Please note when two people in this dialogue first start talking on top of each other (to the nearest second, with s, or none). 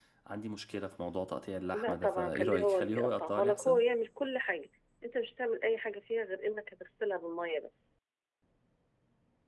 2 s